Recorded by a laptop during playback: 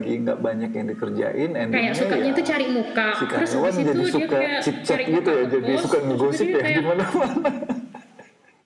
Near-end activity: present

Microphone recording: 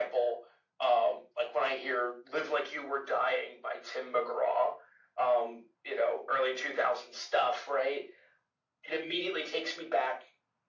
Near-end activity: none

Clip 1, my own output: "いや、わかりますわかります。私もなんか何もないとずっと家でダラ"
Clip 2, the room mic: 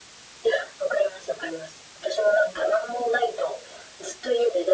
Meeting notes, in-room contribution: none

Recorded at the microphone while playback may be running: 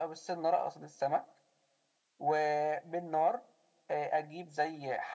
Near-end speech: none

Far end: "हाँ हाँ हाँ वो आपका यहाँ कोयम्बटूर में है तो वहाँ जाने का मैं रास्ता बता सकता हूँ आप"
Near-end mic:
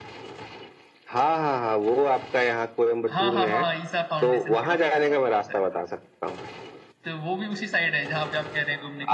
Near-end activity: present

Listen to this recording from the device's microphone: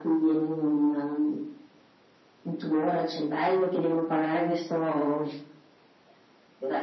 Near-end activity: none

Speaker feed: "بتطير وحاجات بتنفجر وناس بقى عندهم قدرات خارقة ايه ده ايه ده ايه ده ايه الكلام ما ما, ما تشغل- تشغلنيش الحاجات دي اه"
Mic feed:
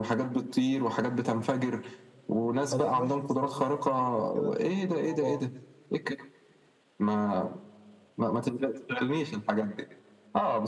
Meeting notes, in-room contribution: present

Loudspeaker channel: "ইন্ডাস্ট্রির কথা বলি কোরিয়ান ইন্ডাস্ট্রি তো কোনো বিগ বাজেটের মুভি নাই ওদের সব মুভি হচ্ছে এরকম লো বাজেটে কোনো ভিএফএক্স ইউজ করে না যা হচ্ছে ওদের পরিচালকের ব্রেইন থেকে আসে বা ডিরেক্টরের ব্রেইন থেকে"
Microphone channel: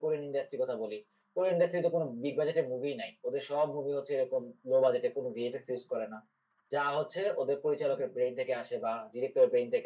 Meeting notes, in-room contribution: none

